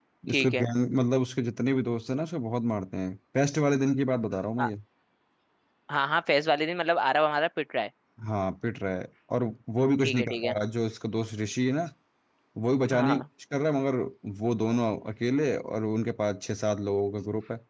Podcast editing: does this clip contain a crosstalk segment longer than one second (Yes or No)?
No